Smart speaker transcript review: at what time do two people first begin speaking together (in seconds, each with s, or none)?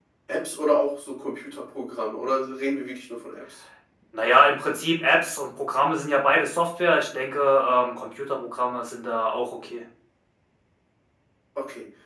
none